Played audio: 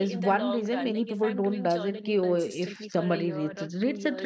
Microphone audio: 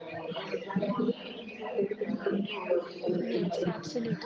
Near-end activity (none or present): present